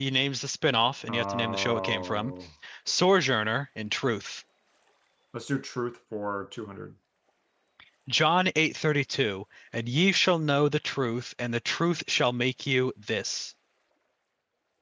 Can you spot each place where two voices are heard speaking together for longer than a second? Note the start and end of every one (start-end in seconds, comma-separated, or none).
1.1-2.3